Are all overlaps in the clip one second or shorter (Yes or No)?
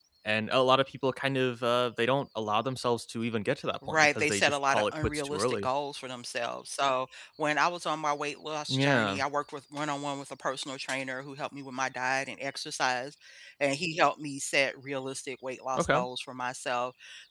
No